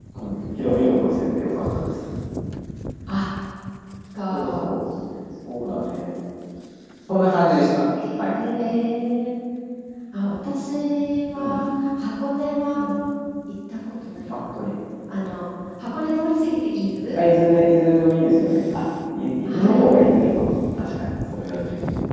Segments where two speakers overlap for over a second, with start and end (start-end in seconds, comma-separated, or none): none